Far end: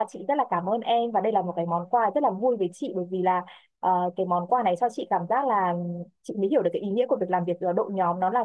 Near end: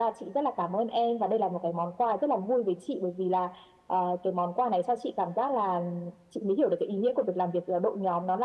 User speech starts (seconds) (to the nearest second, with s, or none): none